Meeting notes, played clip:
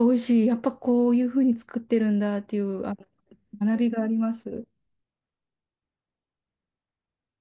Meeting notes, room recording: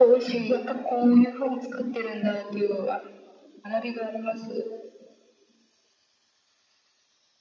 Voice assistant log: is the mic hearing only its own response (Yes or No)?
Yes